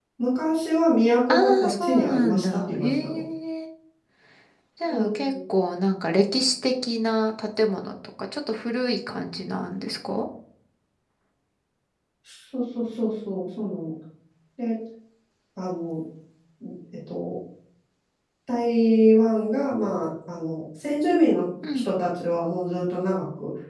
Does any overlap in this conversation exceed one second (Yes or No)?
Yes